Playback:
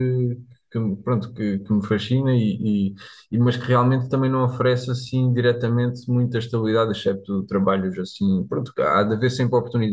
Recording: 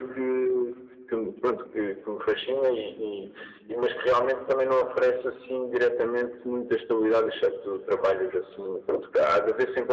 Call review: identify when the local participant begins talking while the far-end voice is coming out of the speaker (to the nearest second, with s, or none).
none